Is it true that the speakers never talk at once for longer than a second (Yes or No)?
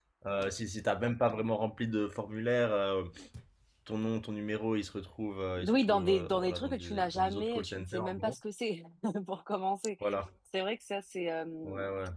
No